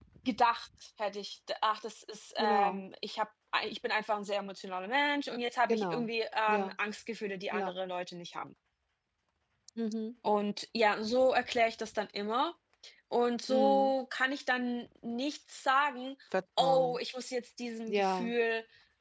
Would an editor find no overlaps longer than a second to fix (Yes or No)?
Yes